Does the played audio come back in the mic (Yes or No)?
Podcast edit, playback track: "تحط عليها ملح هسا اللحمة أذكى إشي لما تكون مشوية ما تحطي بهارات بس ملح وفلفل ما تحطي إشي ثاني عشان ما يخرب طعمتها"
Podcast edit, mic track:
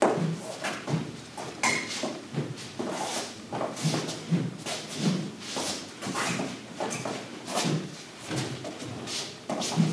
No